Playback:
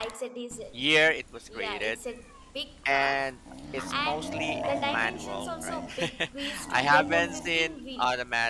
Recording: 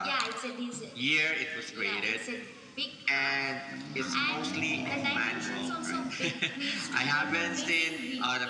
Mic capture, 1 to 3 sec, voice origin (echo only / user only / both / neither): echo only